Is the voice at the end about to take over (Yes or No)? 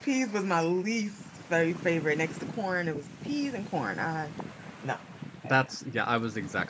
Yes